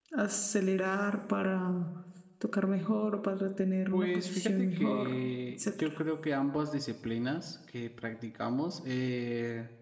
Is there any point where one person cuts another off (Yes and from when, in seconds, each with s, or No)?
Yes, from 3.9 s